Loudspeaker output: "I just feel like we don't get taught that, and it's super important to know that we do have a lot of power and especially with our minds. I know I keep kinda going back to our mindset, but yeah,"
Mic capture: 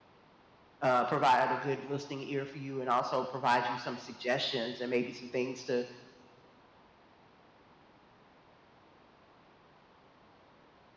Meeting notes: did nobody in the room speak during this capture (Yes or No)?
No